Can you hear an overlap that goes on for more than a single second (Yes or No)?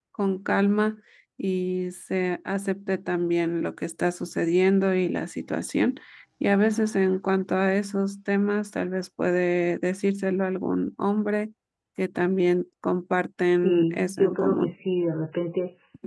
Yes